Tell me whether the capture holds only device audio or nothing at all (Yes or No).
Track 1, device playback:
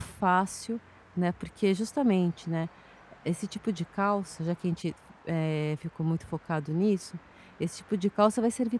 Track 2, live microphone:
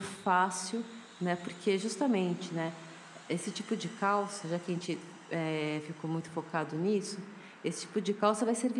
Yes